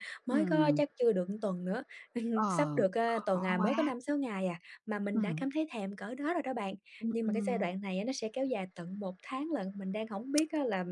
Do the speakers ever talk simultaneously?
Yes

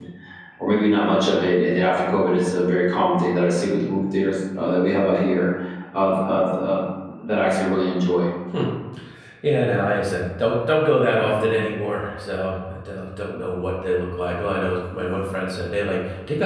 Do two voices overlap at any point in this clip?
No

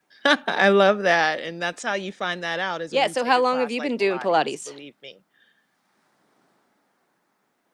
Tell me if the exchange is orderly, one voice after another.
No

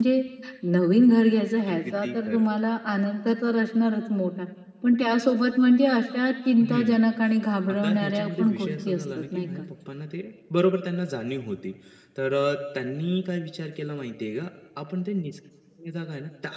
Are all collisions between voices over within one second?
No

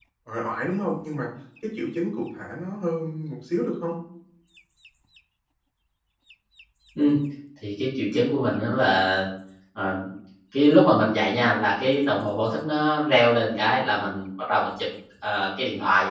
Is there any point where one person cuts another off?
No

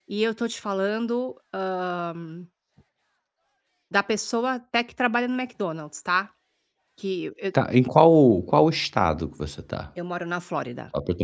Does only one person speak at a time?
Yes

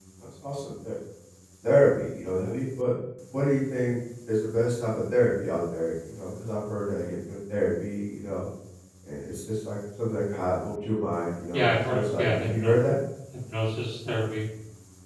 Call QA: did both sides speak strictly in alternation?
No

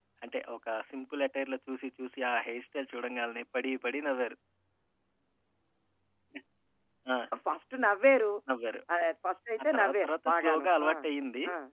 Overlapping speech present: Yes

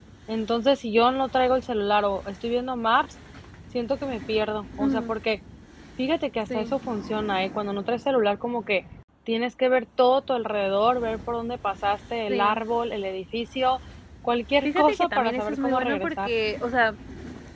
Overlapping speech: Yes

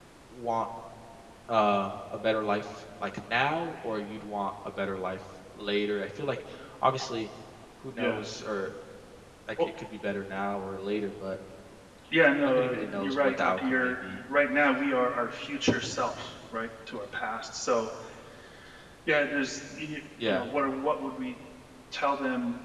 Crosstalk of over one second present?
Yes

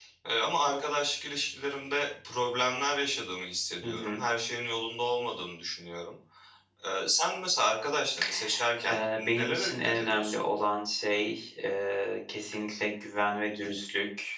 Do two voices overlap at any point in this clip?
Yes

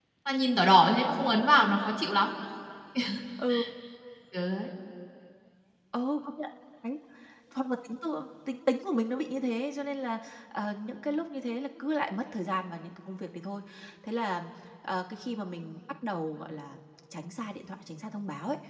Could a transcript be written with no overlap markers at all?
Yes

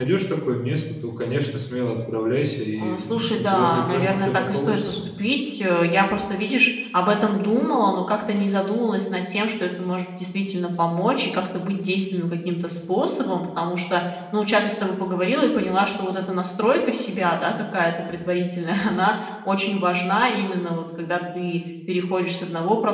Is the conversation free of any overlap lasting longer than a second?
No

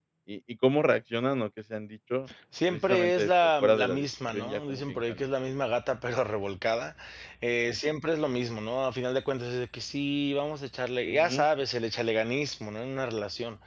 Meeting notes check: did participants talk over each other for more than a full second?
Yes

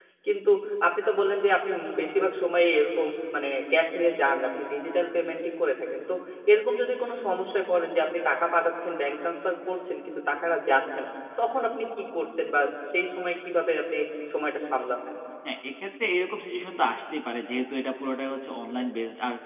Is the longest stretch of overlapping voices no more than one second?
Yes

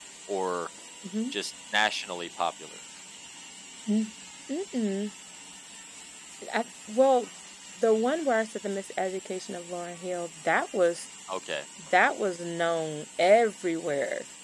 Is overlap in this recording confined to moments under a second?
Yes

